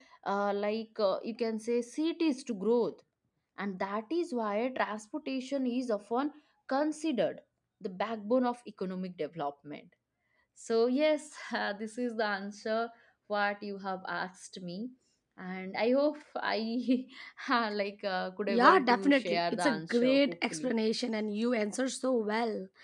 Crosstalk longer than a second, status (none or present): present